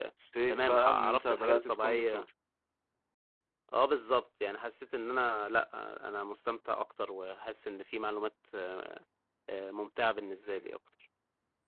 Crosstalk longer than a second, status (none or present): present